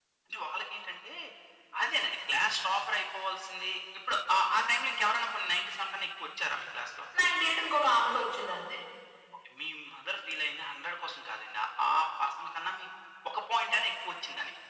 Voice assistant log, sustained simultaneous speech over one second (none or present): none